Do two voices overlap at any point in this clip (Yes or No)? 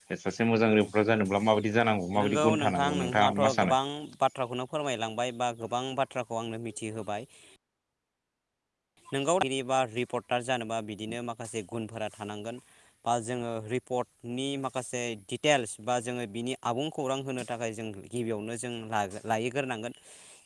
Yes